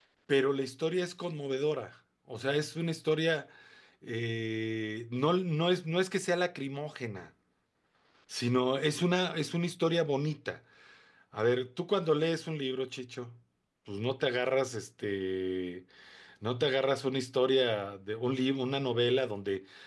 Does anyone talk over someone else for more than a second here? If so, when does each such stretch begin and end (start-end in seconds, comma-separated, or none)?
none